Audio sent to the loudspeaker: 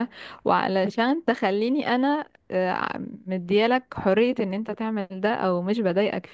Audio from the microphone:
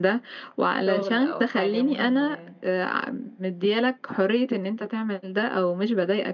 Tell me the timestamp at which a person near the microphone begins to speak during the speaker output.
0.8 s

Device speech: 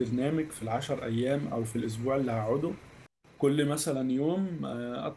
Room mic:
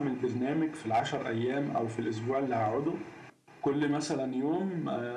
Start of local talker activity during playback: none

